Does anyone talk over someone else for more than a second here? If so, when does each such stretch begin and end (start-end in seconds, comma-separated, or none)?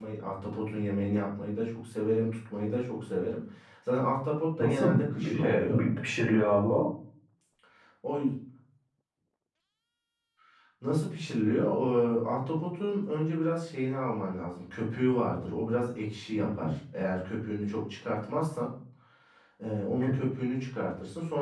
4.6-5.8